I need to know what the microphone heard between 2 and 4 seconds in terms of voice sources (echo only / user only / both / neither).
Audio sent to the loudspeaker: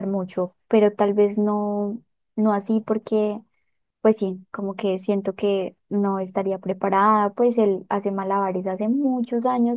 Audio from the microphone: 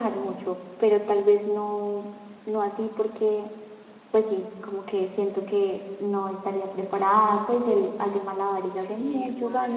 echo only